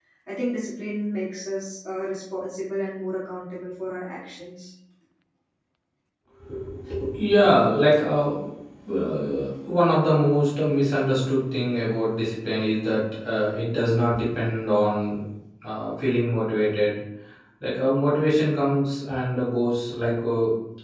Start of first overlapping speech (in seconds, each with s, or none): none